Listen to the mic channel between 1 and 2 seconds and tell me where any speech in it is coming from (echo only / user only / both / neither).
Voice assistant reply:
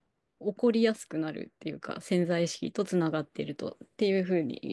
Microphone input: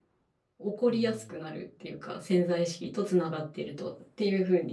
both